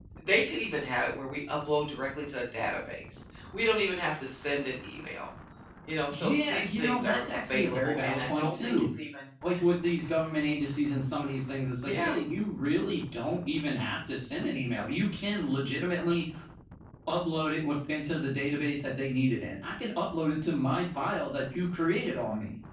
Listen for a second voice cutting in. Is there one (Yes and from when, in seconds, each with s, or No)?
Yes, from 6.1 s